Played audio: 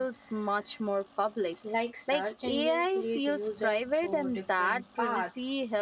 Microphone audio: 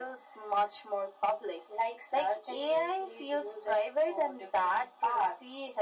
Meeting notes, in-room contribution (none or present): none